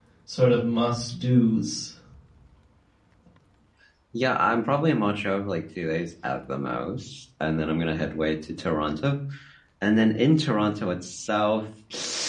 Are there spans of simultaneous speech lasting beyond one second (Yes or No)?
No